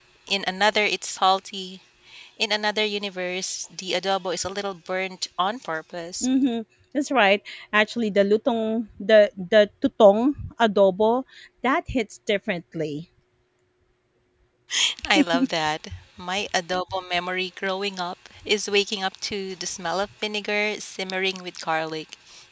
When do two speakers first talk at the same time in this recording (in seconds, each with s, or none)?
none